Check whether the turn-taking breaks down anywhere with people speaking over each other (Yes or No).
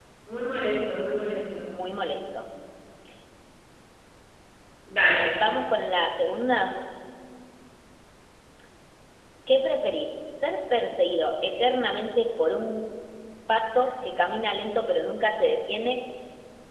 No